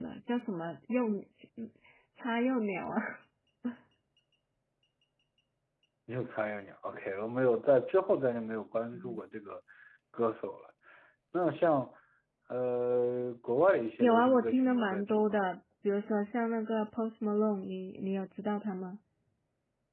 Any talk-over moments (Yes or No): Yes